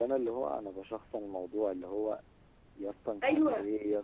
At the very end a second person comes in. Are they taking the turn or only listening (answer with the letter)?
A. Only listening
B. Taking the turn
A